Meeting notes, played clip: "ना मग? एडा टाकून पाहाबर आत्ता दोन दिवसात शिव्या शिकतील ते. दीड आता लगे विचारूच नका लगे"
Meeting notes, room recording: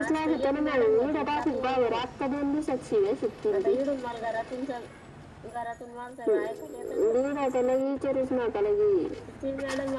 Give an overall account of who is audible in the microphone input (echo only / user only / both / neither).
both